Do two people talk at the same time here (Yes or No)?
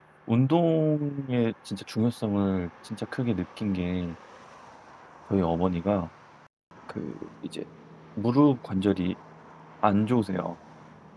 No